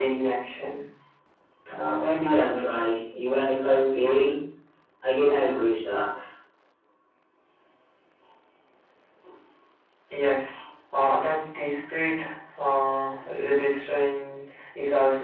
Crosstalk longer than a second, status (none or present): none